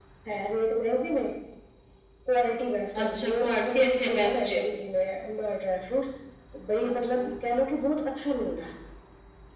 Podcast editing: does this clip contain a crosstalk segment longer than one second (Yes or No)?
Yes